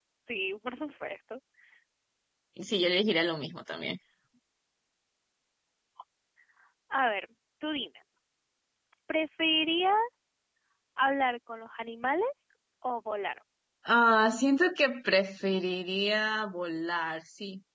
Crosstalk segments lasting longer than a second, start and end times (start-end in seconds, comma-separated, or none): none